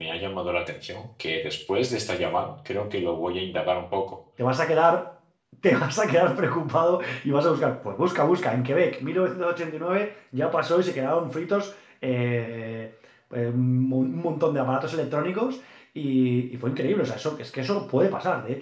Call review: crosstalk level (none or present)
none